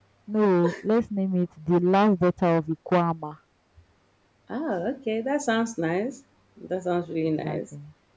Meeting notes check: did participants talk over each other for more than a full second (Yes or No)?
No